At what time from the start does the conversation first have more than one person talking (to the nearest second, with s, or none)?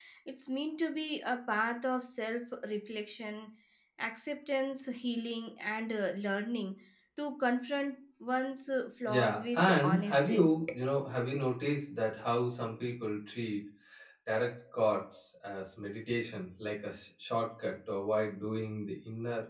9 s